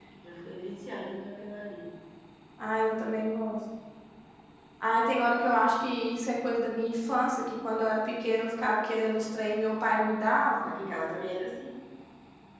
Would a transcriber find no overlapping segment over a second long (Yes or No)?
Yes